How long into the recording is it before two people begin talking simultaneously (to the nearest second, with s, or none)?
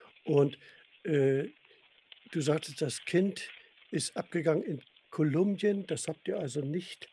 none